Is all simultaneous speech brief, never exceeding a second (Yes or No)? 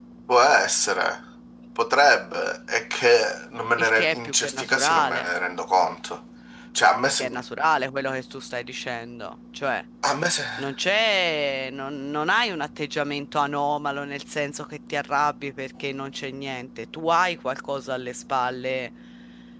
No